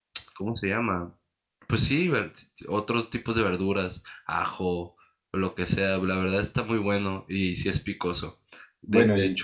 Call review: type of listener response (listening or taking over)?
listening